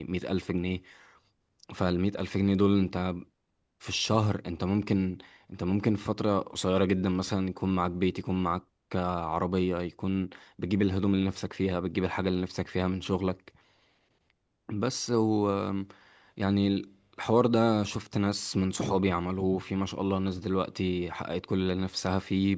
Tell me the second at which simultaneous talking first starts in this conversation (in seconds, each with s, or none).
none